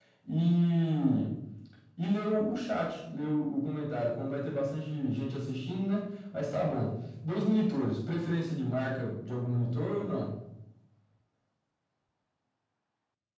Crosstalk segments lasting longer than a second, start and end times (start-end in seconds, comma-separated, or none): none